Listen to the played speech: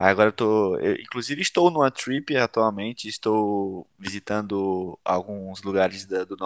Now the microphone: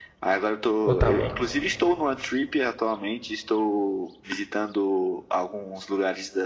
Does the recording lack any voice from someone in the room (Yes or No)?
No